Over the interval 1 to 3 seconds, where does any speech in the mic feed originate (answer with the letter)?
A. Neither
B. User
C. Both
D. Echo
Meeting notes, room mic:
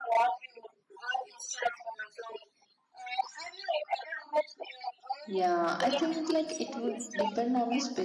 D